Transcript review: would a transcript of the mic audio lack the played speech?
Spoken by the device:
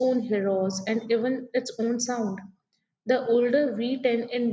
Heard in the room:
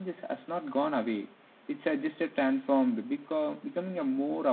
Yes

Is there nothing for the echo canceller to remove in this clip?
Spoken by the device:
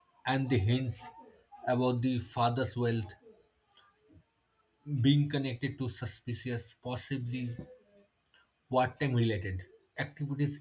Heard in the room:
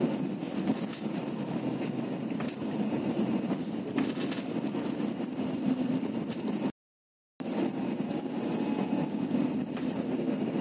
Yes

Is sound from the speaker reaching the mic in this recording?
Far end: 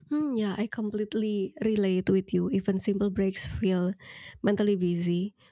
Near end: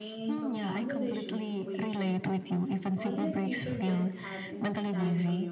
Yes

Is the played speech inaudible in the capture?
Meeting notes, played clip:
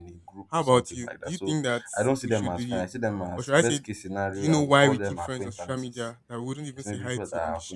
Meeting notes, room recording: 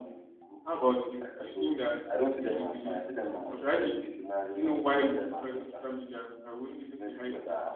No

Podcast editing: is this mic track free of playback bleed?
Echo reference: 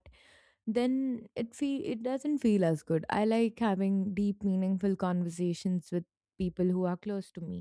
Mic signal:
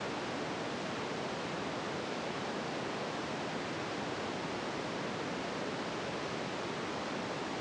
Yes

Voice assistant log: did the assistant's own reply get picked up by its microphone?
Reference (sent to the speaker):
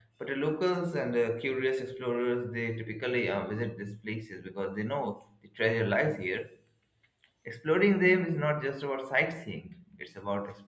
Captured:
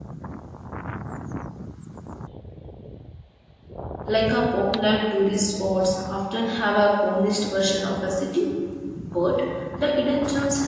No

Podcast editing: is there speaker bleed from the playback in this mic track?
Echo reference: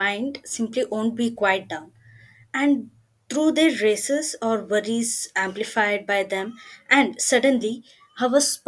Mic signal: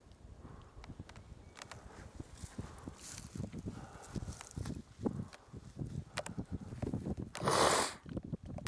No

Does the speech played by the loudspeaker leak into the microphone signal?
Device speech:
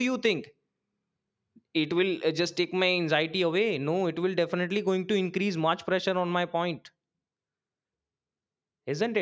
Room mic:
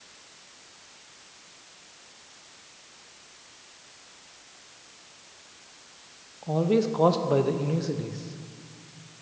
No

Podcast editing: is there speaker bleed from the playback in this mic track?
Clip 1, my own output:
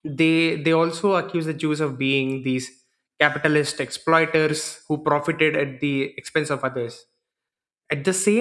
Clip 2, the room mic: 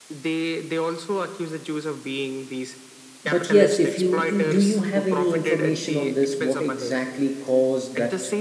Yes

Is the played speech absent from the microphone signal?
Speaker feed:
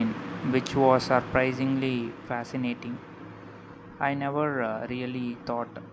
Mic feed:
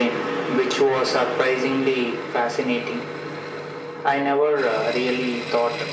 No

